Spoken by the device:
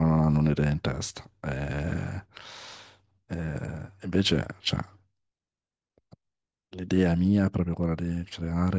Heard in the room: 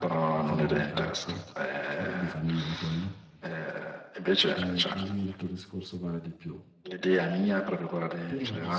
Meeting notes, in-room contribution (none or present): present